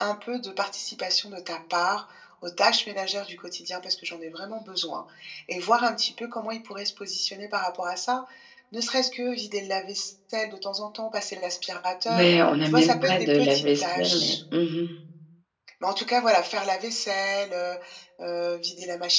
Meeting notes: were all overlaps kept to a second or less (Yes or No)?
No